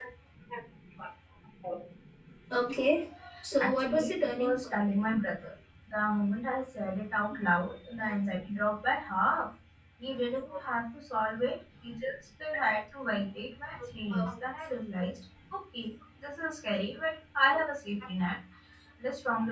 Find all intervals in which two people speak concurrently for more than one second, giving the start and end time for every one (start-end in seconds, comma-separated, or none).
3.6-4.8